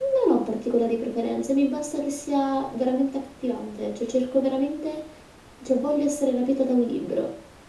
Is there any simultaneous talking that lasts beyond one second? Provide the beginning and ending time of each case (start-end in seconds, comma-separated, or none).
none